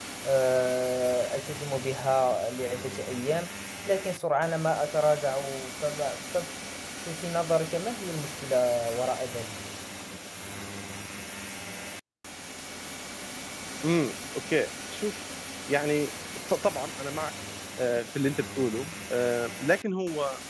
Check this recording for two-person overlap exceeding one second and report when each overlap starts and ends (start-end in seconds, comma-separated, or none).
none